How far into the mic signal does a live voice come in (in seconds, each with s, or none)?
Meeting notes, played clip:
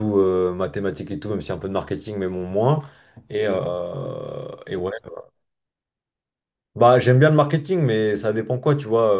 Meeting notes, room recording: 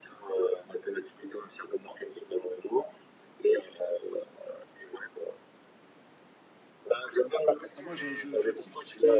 7.8 s